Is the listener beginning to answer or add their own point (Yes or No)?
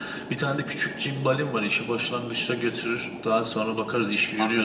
Yes